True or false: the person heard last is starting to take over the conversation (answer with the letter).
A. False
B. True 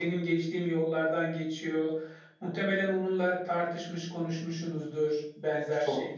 A